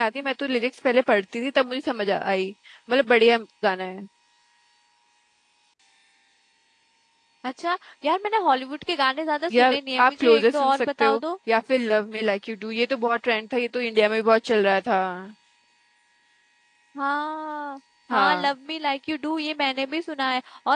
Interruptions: present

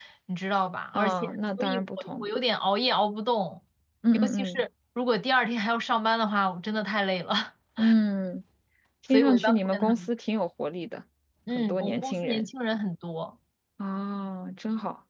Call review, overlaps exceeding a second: present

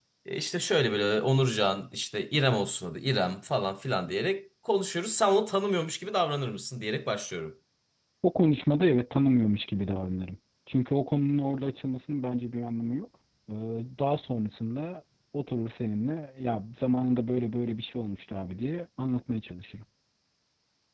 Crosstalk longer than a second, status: none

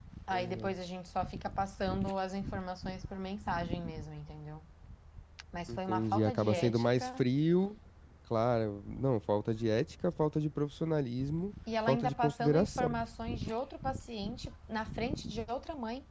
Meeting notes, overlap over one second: present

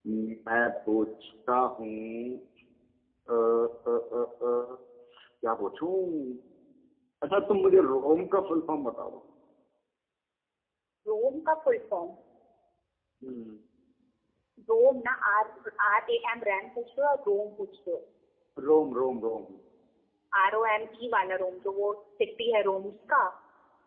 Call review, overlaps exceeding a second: none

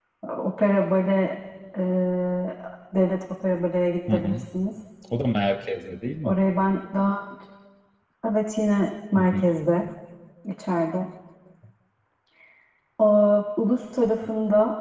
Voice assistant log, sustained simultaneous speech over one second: none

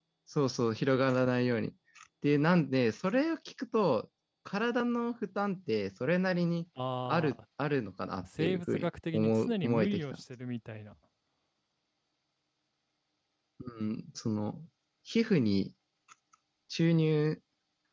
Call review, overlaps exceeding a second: present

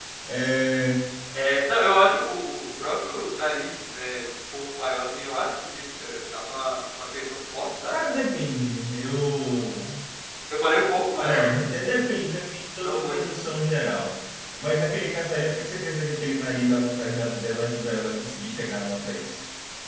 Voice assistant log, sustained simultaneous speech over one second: none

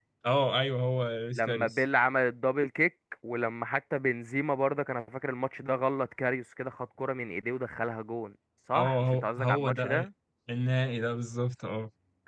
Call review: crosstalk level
present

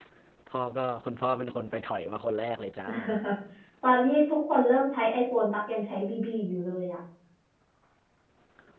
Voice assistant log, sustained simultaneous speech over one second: none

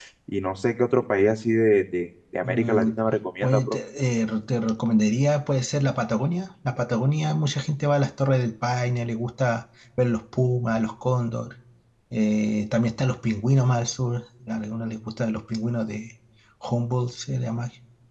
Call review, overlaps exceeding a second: none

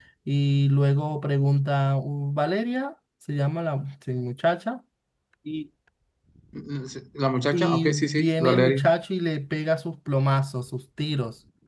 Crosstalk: present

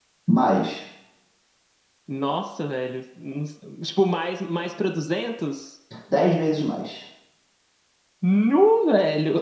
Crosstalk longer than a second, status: none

